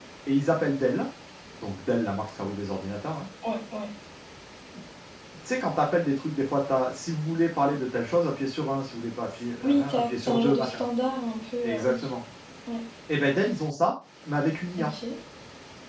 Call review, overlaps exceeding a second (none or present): present